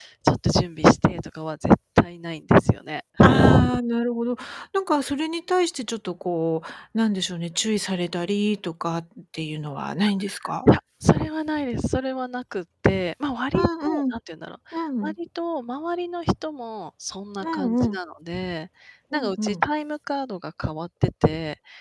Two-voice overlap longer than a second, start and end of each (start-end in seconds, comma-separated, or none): none